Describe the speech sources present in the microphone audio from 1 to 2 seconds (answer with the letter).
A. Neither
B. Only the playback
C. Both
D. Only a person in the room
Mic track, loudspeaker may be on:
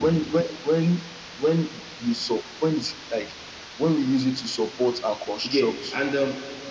B